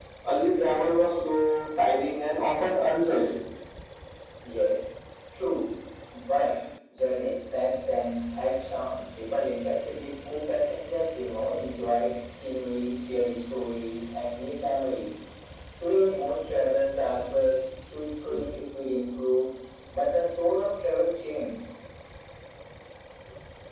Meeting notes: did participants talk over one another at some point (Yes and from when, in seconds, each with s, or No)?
No